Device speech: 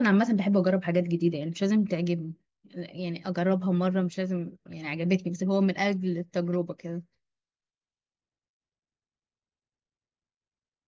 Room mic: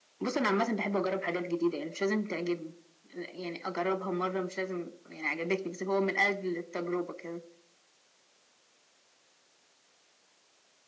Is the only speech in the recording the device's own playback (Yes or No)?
Yes